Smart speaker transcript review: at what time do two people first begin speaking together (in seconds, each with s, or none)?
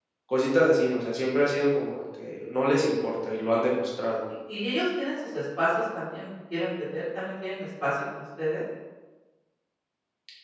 none